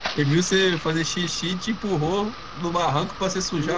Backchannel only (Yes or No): No